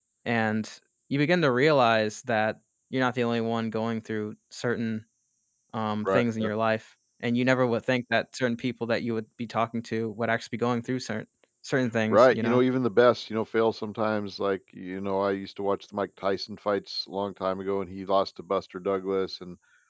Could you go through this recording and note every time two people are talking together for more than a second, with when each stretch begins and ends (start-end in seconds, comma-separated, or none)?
none